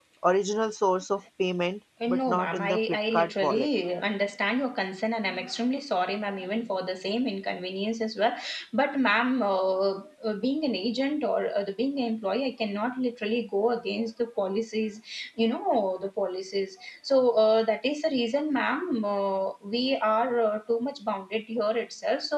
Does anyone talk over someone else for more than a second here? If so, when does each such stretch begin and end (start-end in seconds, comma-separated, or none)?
2.1-3.7